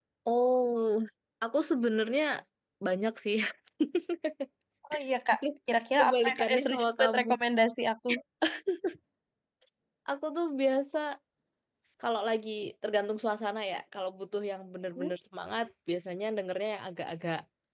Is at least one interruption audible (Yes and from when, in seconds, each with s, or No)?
Yes, from 6.0 s